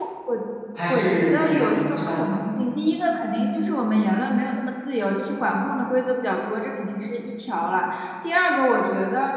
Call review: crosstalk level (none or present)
present